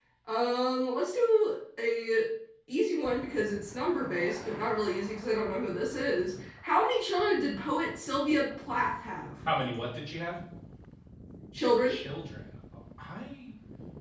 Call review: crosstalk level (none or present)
none